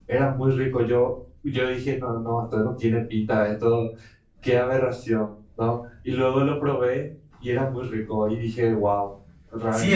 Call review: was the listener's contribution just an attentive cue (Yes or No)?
No